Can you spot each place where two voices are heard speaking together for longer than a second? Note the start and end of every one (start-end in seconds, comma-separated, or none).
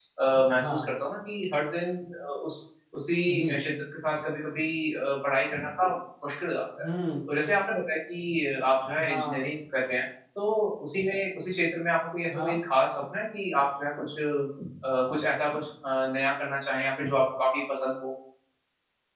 none